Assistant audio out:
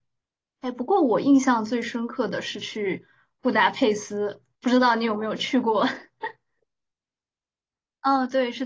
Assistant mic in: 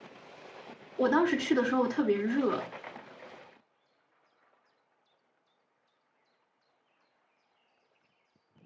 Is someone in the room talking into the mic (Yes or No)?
Yes